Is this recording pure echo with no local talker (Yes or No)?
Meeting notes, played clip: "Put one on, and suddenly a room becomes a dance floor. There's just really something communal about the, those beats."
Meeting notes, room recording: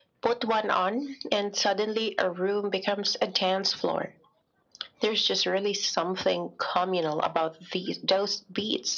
Yes